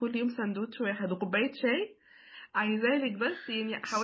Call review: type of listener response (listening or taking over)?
listening